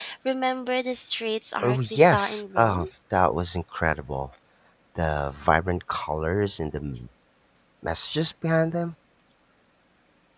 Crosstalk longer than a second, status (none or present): present